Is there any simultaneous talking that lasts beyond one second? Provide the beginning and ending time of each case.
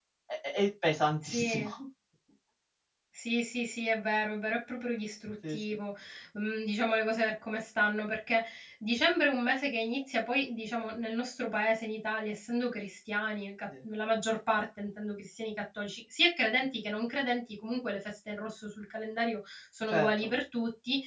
none

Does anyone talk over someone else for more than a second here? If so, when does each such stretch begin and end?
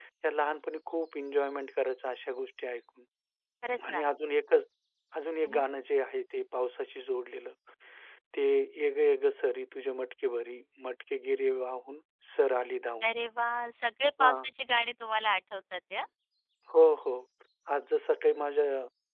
none

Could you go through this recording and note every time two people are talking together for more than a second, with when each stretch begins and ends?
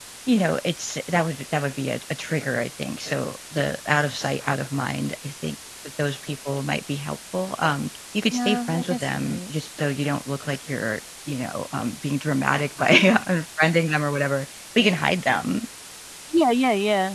8.3-9.5

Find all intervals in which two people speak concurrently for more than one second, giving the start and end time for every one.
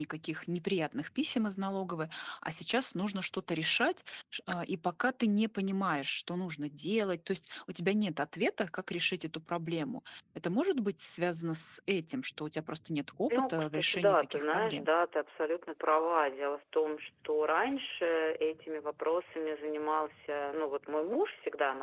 13.3-14.9

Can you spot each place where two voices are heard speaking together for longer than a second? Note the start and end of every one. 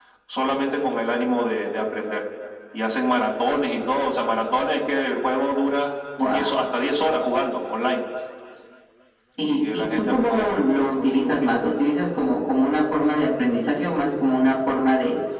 9.4-11.5

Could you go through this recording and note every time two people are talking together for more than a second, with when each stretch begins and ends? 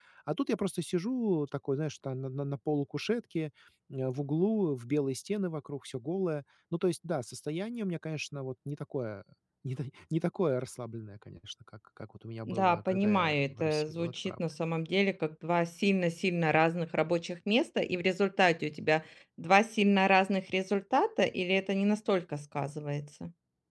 12.5-14.3

